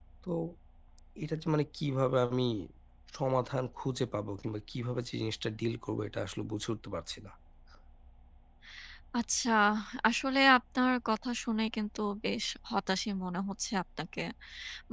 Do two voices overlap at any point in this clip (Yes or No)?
No